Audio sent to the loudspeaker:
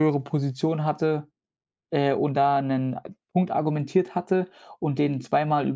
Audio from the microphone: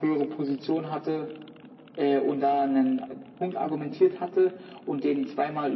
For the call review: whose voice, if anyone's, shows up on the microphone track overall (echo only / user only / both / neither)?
echo only